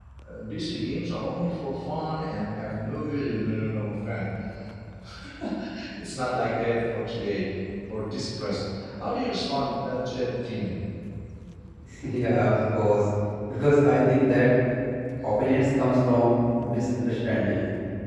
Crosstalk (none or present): none